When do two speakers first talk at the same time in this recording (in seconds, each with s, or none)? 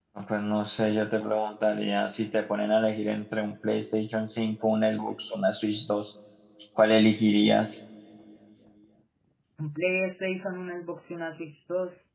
none